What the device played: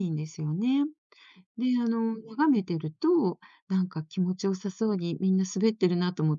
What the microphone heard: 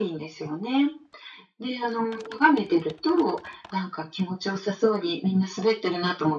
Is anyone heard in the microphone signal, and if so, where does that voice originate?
echo only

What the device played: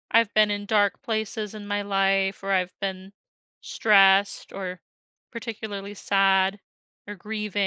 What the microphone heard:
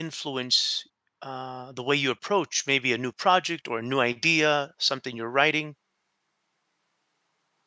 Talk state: user only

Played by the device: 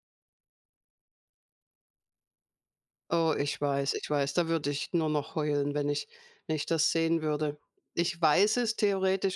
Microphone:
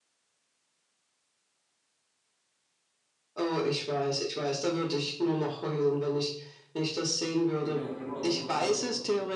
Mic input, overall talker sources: both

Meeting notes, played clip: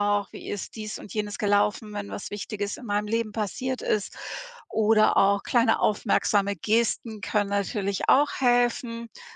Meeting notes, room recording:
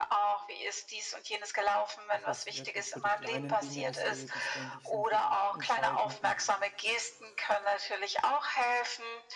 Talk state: both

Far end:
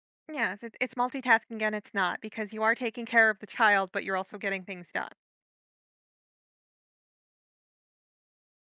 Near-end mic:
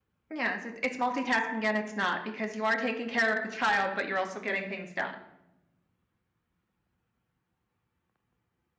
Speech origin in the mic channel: echo only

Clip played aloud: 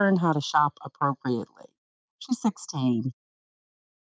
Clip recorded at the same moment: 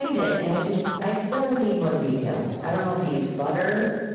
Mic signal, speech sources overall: both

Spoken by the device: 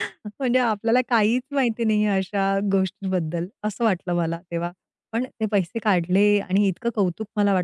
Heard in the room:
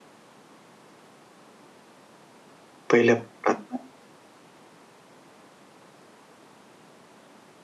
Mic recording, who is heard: user only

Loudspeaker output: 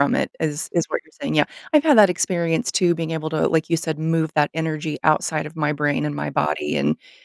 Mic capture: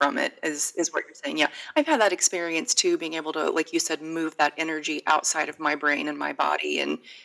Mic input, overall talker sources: echo only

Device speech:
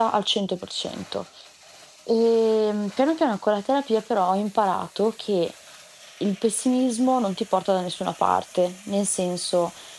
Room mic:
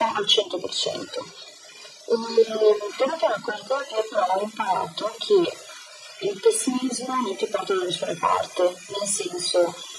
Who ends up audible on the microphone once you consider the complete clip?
echo only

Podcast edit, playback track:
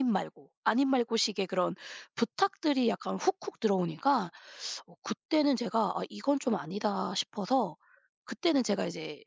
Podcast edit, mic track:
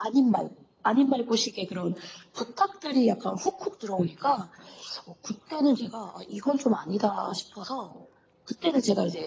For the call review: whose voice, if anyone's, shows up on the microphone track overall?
echo only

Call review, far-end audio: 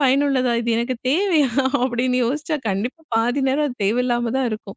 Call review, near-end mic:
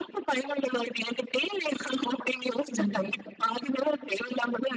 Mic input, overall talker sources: both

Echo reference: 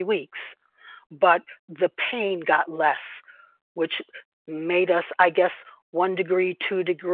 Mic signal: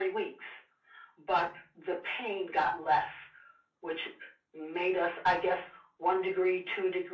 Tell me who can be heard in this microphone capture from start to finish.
echo only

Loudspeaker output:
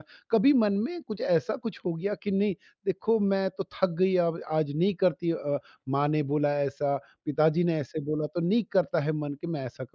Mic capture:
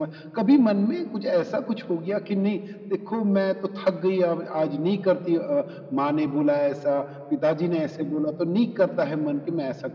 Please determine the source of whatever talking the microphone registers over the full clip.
echo only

